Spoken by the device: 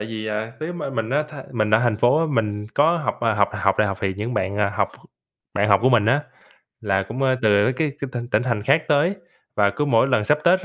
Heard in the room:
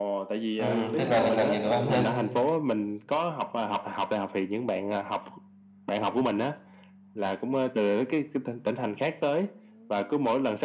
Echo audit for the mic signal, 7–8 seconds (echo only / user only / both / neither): echo only